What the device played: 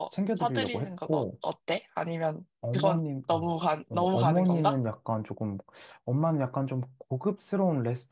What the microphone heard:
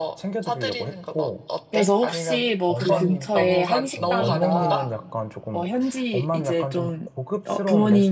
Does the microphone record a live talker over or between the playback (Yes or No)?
Yes